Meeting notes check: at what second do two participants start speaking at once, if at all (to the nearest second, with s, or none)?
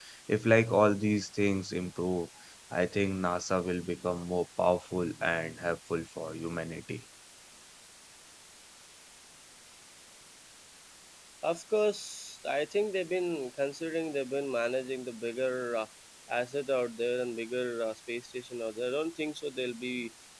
none